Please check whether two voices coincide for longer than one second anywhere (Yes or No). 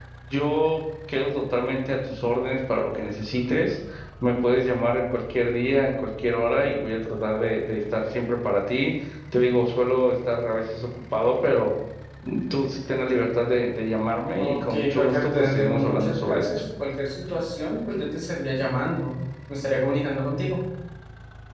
Yes